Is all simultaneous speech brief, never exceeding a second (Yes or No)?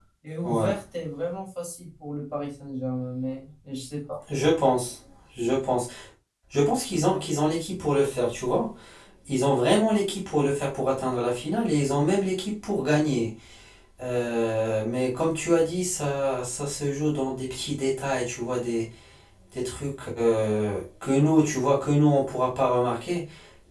Yes